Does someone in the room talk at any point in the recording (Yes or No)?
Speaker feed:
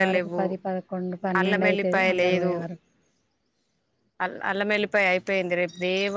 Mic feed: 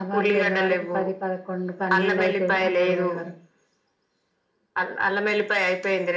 No